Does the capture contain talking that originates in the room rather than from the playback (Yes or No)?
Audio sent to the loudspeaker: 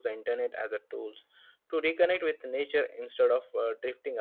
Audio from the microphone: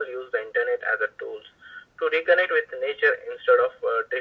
No